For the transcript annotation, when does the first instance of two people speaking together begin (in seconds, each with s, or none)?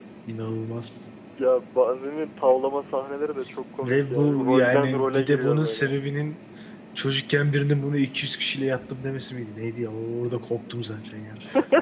3.8 s